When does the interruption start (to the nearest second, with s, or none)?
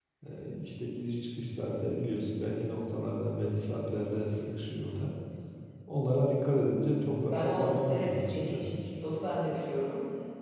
7 s